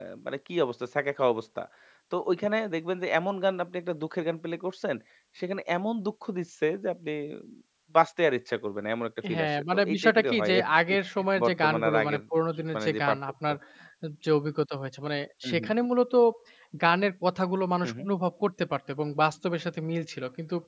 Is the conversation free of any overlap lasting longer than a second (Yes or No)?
No